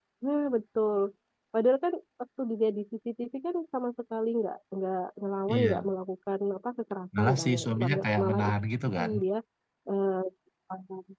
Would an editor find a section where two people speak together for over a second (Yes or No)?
Yes